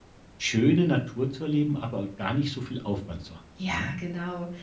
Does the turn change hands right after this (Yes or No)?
Yes